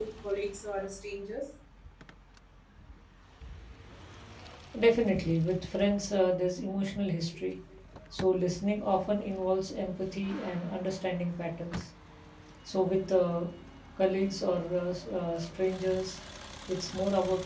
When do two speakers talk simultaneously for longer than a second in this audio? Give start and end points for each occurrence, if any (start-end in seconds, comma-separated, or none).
none